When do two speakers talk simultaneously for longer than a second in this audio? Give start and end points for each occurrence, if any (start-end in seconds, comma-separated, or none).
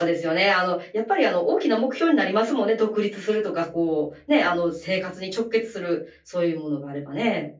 none